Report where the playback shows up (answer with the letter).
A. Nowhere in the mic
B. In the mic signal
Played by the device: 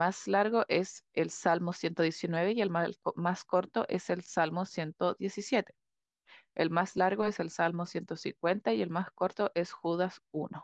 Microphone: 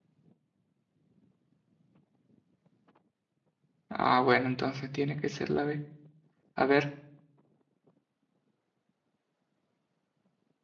A